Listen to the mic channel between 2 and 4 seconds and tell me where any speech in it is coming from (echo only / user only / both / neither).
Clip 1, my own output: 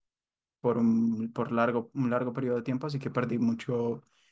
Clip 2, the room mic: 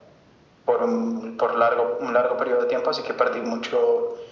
echo only